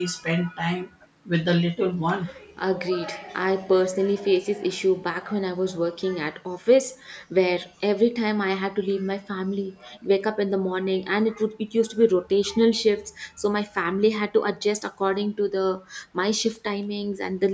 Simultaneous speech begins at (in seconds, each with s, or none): none